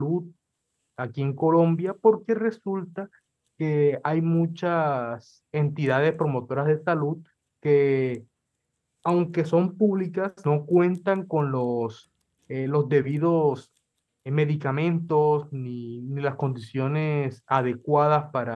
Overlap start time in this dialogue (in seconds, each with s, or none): none